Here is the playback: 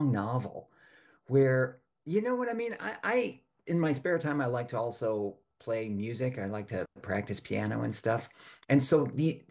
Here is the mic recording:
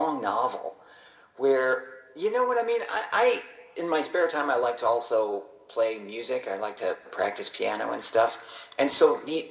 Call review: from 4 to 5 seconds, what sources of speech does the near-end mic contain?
echo only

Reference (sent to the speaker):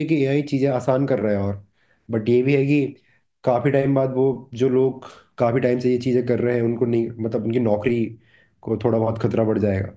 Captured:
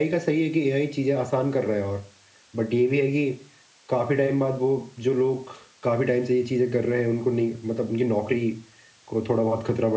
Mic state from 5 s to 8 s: echo only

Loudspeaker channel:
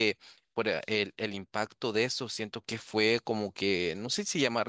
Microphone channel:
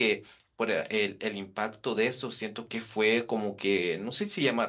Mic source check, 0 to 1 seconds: echo only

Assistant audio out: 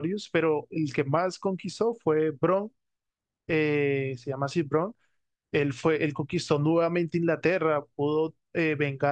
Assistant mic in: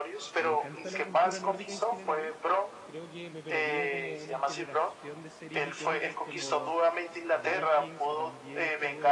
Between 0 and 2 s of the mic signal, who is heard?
both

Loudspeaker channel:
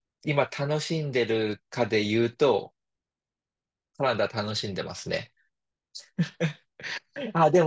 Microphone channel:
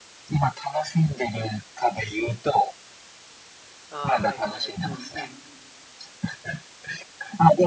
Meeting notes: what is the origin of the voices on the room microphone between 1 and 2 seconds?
echo only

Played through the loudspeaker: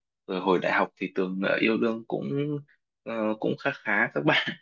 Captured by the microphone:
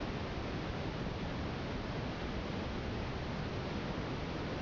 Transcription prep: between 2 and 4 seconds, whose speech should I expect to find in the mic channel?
neither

